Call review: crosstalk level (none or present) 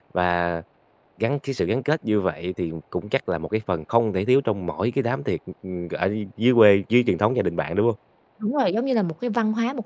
none